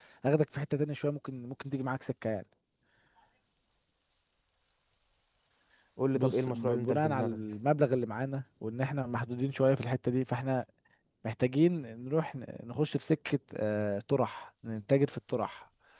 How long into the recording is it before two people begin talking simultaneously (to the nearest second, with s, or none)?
6 s